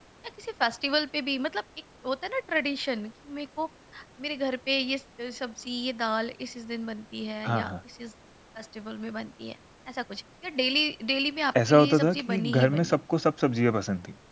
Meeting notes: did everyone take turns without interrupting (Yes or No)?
No